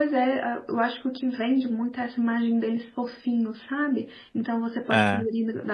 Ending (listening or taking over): listening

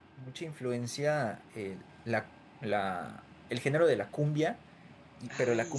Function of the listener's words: listening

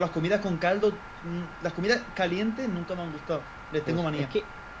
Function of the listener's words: taking over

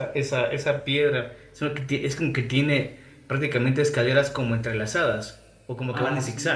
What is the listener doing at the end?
taking over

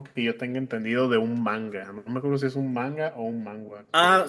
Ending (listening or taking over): taking over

